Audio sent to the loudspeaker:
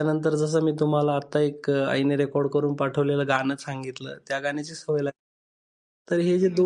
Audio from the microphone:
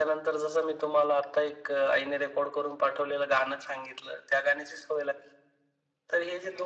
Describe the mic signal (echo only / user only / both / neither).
echo only